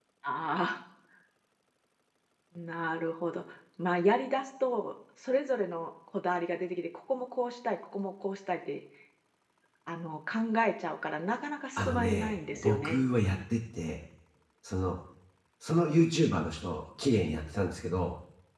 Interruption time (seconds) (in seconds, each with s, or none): 11.8 s